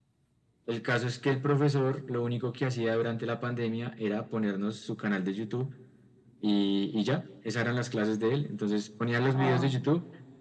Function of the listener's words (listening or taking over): listening